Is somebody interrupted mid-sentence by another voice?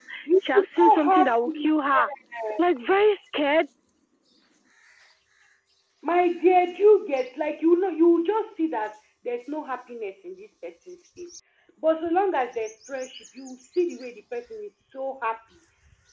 Yes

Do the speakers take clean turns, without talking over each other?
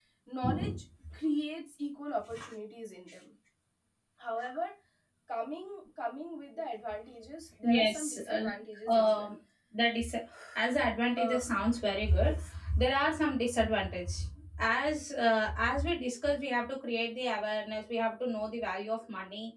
No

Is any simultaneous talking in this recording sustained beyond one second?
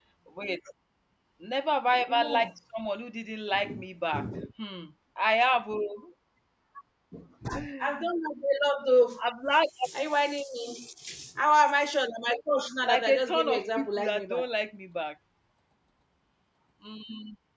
Yes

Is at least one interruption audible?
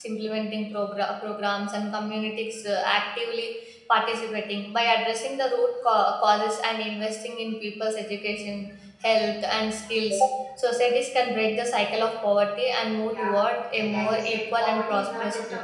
Yes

